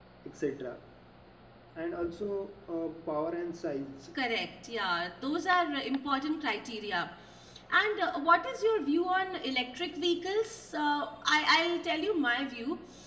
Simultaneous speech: No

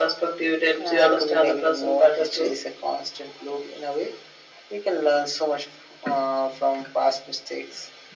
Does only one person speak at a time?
No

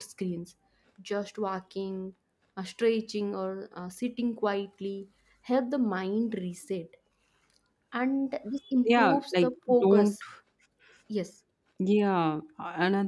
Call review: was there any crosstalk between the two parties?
Yes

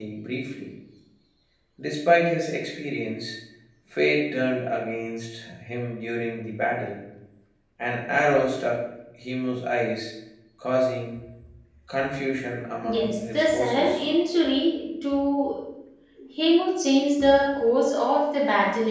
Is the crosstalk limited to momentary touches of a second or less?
No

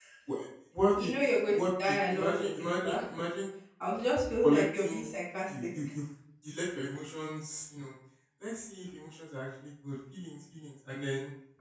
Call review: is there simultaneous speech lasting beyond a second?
Yes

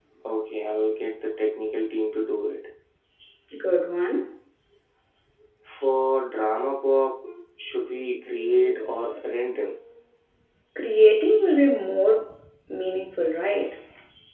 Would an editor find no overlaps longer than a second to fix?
Yes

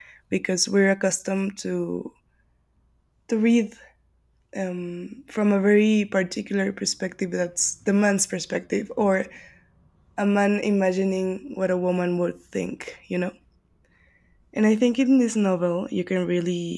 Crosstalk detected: No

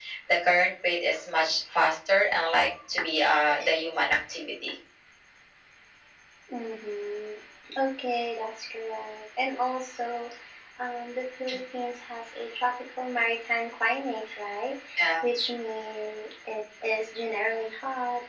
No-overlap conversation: Yes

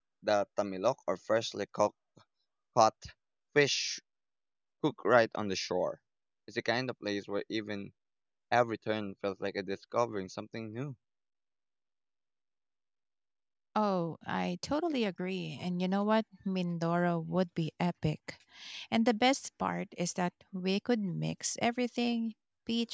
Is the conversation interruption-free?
Yes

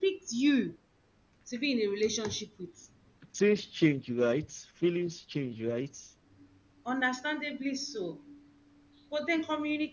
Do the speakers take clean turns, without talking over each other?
Yes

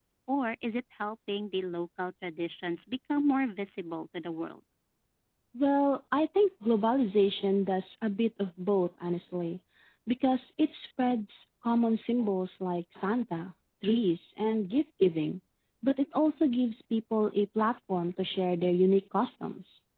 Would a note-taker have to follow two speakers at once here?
No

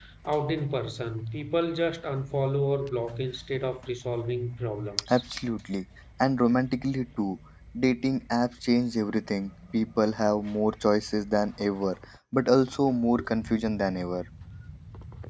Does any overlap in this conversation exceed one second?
No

